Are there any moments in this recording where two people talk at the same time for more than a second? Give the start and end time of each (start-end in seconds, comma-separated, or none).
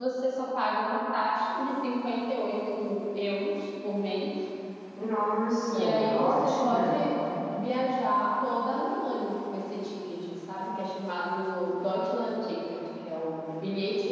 5.7-7.0